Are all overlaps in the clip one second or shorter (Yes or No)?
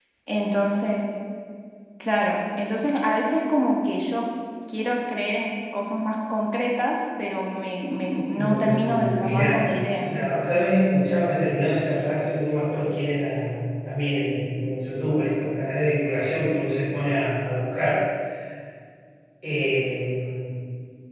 No